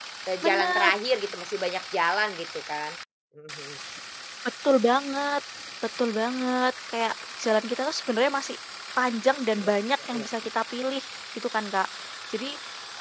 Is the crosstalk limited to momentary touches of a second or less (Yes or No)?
Yes